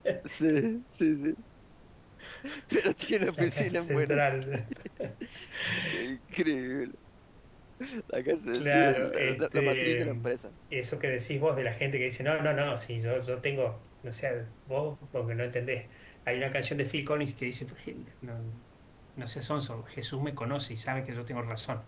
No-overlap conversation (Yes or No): No